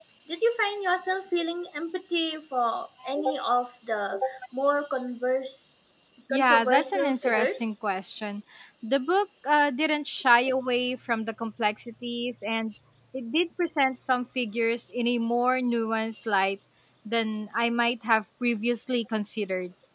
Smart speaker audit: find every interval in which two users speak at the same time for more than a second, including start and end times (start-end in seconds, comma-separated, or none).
6.3-7.7